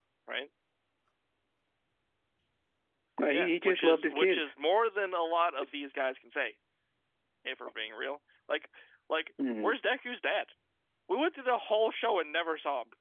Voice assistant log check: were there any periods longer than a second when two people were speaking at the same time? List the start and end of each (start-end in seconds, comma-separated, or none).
3.3-4.5